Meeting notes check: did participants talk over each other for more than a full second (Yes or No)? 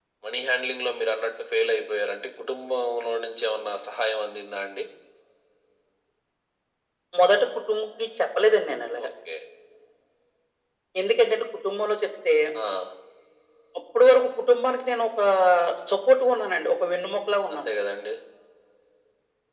No